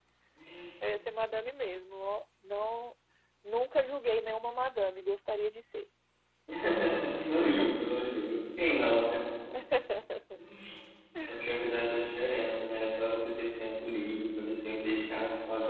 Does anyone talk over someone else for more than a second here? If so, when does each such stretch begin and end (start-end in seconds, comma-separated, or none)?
none